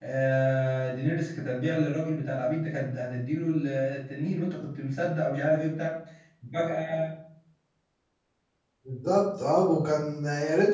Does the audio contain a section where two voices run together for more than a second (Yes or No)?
No